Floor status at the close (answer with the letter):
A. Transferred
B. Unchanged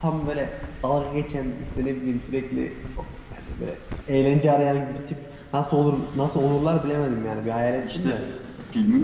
A